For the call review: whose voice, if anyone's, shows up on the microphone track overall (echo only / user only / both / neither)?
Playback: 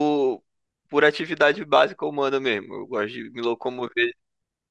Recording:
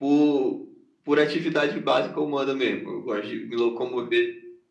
echo only